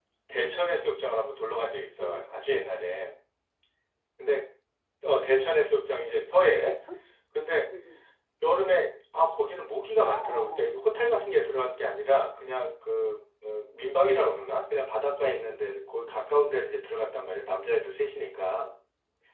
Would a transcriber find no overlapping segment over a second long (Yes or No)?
Yes